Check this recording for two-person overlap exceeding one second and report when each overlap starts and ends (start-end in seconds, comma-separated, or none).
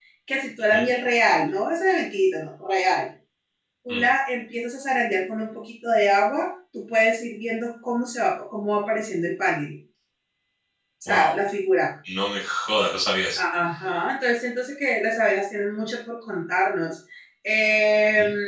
none